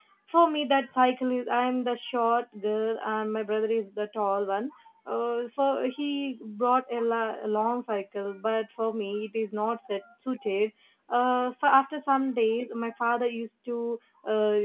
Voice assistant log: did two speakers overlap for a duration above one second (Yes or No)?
No